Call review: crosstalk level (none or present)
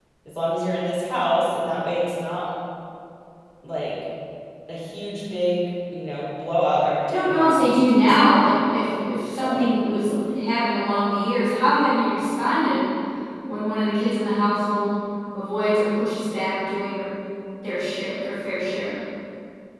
present